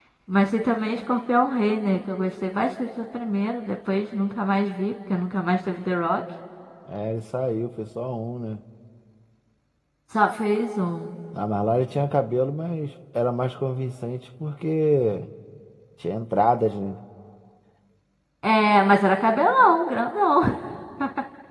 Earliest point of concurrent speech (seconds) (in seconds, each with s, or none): none